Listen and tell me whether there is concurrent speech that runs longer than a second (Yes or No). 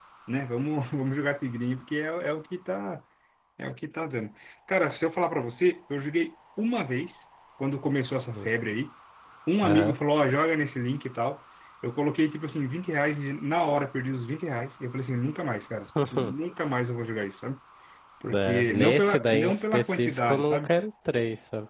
Yes